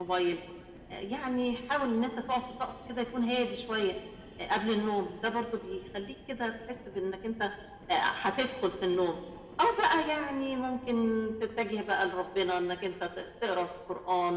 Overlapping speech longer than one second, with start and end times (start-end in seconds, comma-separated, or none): none